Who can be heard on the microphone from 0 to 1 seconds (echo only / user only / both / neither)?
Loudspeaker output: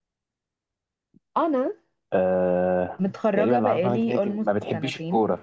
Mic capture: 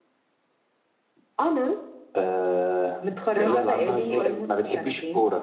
neither